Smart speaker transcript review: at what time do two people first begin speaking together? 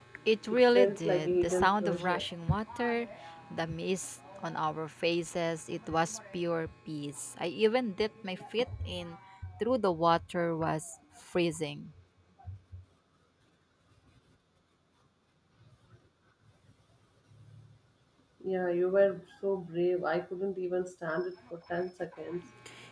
0.5 s

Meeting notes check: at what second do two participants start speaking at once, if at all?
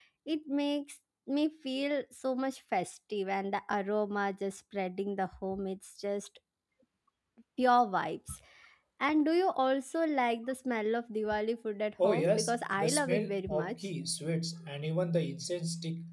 12.0 s

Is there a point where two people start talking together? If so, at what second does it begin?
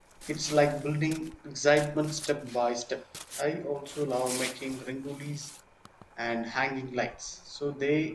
none

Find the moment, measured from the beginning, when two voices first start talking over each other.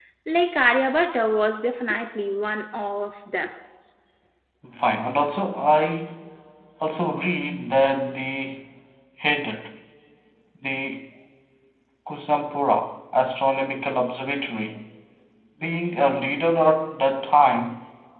none

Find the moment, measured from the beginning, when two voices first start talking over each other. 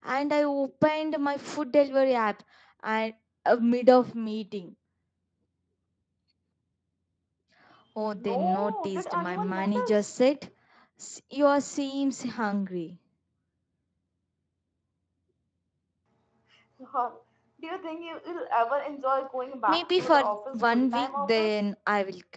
8.2 s

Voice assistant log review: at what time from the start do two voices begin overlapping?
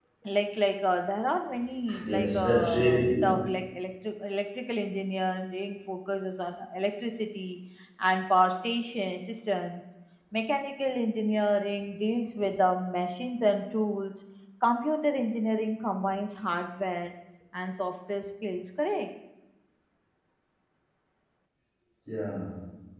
1.9 s

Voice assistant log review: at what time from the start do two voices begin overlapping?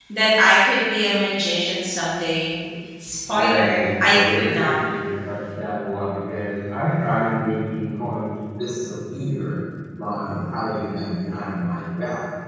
3.3 s

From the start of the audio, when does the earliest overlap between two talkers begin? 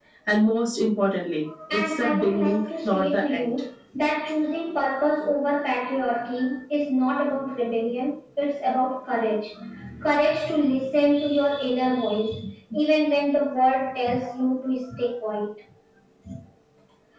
1.7 s

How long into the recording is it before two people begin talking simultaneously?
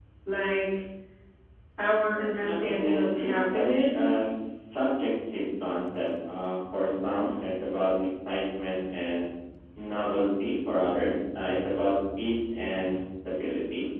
2.4 s

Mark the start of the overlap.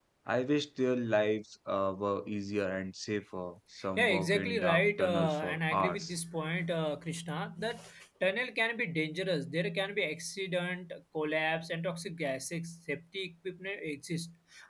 4.0 s

